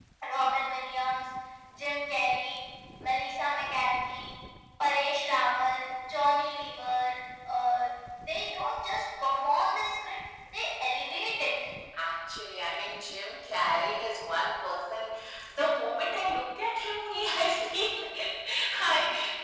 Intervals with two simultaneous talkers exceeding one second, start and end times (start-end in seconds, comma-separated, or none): none